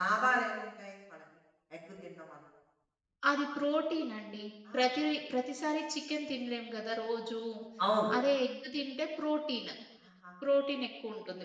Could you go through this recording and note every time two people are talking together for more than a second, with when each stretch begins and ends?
none

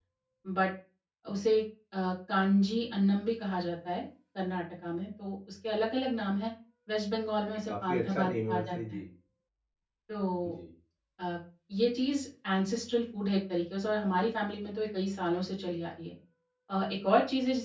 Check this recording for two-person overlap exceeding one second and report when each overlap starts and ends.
7.7-9.0

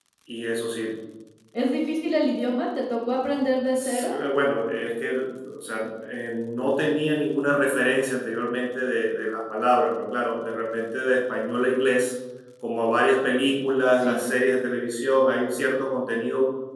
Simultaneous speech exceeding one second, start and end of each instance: none

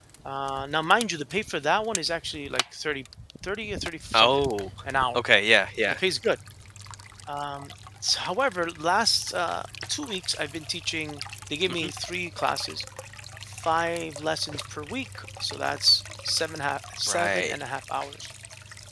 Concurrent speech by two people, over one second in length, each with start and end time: none

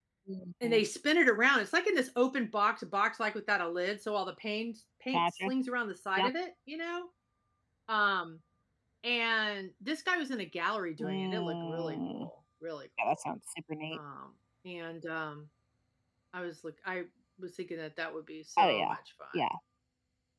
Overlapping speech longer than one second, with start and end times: 11.0-12.3

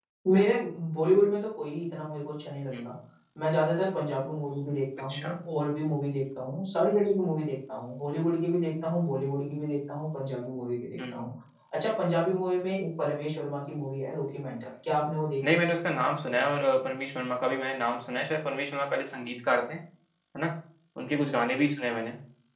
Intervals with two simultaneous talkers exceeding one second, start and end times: none

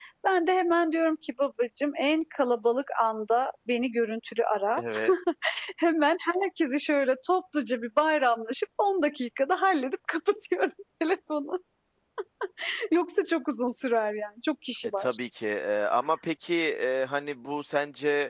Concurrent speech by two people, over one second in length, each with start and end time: none

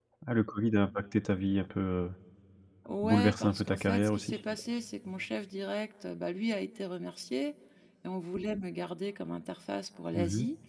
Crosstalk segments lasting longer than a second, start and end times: 3.0-4.4

